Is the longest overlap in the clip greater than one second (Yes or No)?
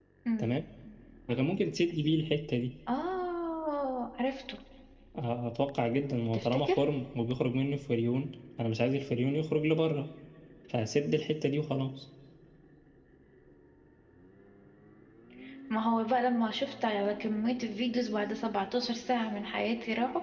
No